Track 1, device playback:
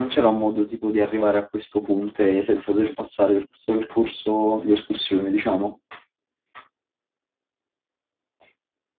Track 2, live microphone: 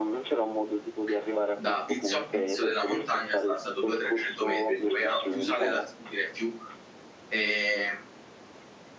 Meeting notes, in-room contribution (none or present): present